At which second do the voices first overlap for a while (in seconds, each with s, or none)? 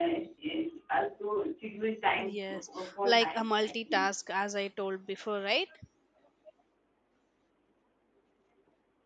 2.2 s